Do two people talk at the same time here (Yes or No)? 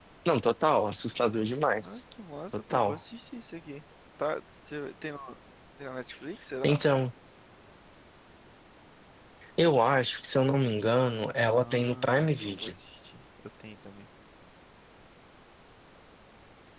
Yes